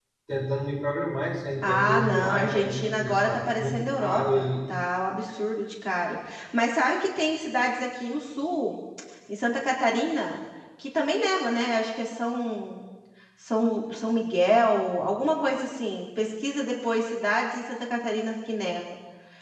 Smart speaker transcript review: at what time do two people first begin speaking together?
1.6 s

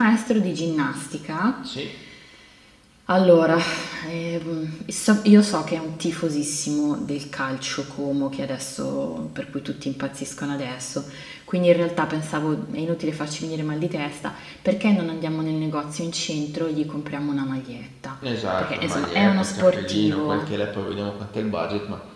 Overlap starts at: 18.6 s

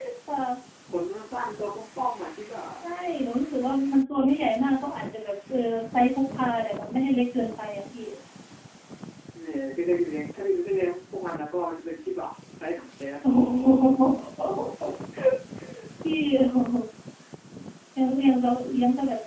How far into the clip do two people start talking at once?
none

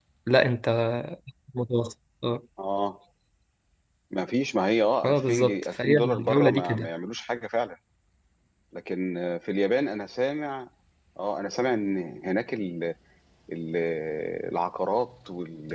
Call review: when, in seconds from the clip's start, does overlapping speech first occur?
5.0 s

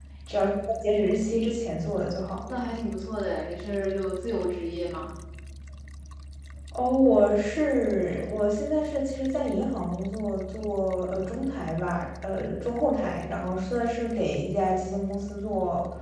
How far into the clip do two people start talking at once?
none

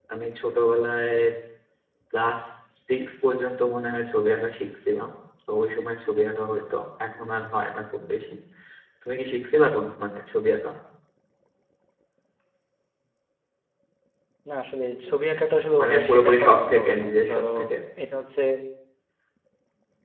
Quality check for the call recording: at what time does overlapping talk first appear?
15.7 s

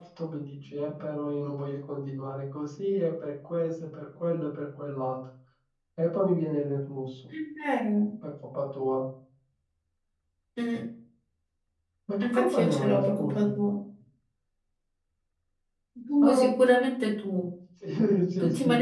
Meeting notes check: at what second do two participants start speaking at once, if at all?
12.2 s

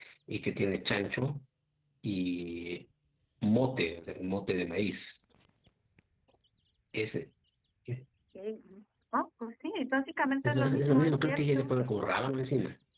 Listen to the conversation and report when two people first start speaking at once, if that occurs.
10.4 s

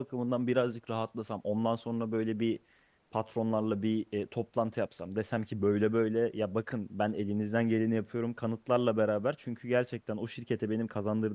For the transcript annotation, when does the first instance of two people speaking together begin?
none

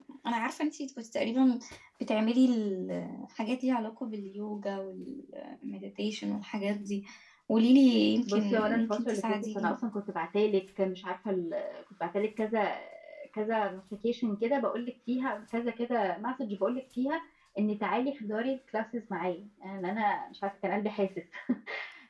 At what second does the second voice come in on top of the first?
8.2 s

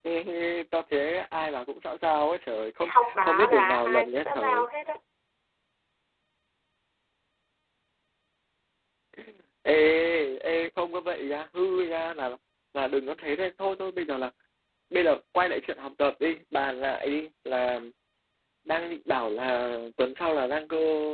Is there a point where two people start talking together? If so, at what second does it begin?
2.8 s

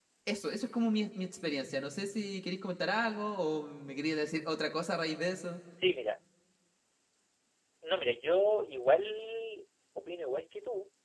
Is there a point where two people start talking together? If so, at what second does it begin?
none

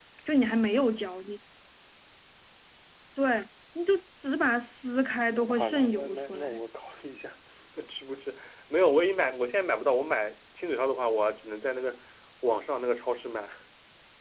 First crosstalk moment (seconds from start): 5.3 s

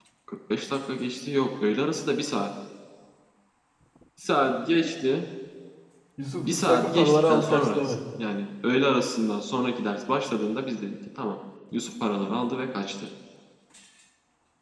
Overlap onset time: 6.4 s

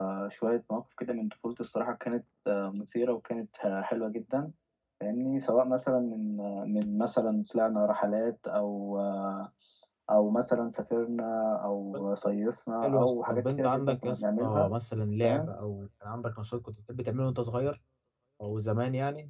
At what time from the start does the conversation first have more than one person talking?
12.8 s

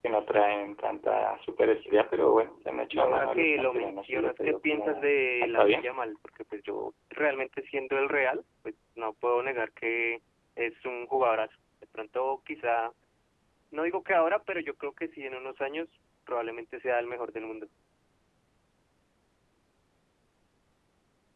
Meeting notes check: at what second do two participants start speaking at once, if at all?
2.9 s

